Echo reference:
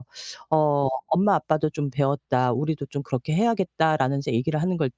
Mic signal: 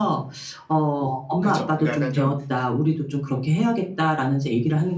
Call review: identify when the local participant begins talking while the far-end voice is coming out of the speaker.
1.4 s

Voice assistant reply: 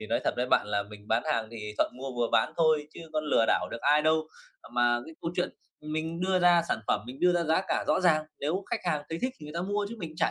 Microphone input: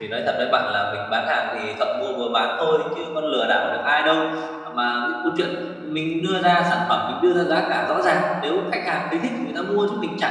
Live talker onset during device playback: none

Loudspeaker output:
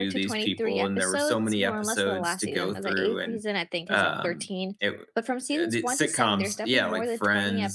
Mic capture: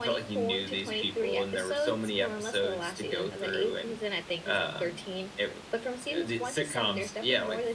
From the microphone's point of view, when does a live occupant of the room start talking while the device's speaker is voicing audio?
none

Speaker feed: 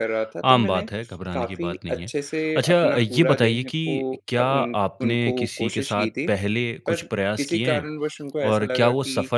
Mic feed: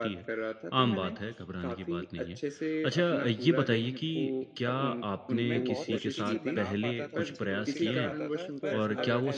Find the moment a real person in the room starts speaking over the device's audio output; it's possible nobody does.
5.4 s

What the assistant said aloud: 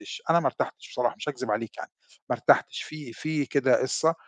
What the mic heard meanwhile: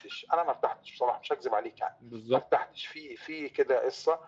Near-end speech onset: 2.0 s

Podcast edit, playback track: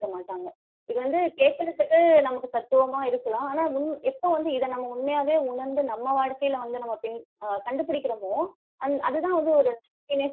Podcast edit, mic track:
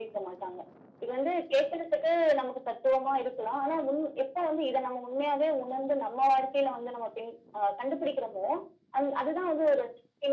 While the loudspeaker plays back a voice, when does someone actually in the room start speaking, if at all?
none

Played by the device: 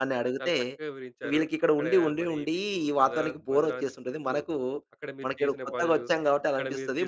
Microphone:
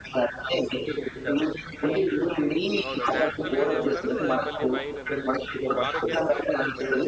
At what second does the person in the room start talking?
1.8 s

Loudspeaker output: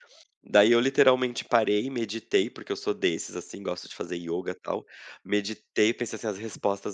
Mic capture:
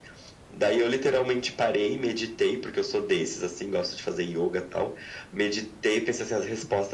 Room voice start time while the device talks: none

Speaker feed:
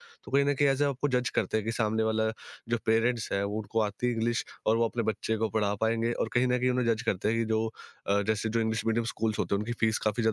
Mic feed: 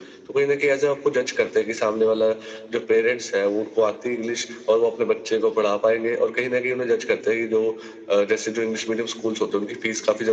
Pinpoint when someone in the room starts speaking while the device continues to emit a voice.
none

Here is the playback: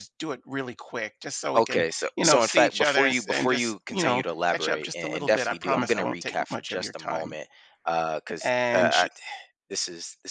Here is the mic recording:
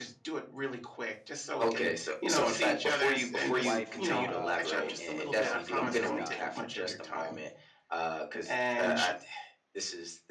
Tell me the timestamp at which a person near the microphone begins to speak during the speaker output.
3.5 s

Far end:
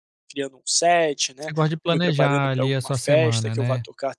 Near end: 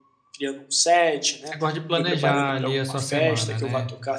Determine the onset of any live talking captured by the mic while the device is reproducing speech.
none

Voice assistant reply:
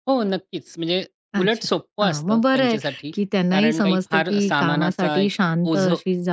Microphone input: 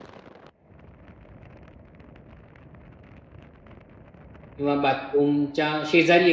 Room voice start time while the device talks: 4.6 s

